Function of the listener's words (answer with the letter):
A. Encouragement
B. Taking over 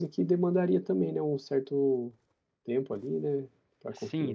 B